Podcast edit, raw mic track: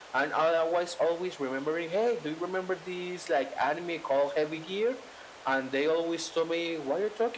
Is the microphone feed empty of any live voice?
Yes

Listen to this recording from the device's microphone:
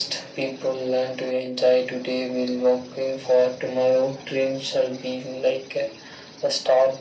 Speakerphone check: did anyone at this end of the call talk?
No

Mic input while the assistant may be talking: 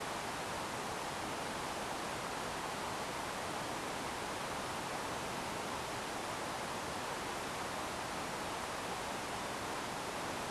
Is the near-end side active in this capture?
No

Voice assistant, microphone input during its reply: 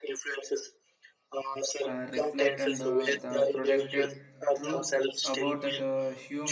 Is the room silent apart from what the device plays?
No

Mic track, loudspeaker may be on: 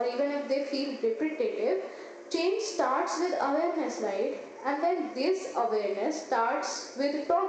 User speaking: No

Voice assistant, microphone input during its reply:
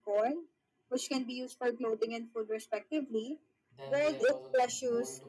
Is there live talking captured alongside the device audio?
Yes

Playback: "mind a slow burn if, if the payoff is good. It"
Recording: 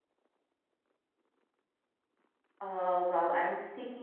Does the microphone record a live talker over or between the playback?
Yes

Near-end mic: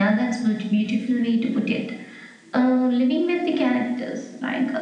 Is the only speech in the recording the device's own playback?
Yes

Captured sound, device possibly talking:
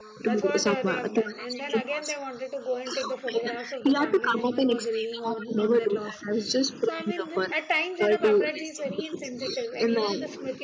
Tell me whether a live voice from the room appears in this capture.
Yes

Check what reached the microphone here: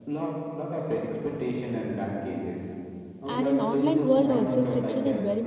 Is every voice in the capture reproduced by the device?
No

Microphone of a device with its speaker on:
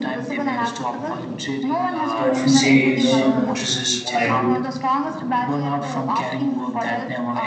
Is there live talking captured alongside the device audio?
Yes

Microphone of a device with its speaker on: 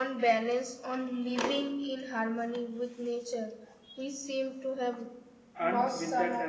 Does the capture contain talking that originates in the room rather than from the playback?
Yes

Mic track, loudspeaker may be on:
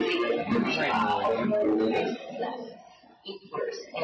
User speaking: Yes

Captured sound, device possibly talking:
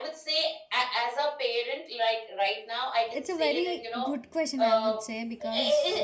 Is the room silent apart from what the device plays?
No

